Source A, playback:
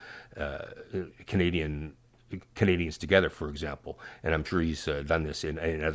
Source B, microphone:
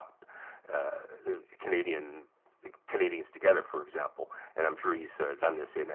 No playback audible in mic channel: No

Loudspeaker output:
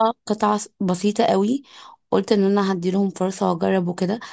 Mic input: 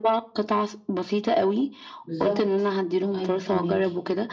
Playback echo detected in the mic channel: Yes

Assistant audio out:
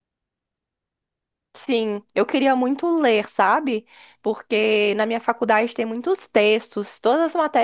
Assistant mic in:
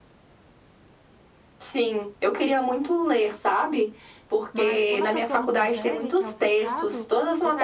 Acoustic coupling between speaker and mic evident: Yes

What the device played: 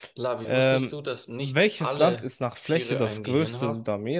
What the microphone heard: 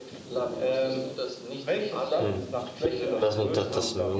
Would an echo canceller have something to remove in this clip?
Yes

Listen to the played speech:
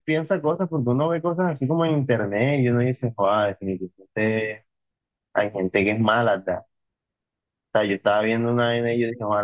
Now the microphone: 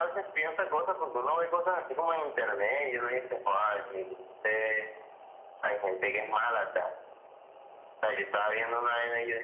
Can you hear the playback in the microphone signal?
Yes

